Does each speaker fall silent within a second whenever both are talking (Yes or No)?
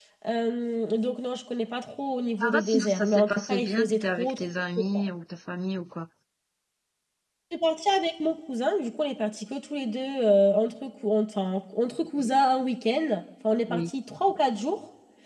No